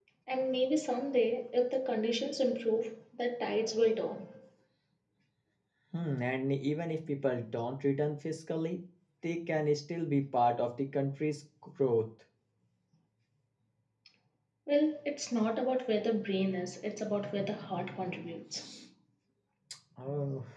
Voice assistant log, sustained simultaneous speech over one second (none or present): none